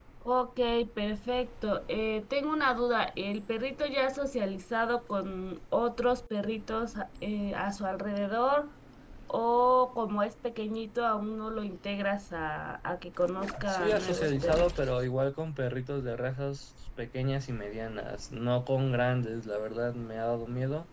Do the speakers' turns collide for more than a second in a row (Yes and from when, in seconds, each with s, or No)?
Yes, from 13.6 s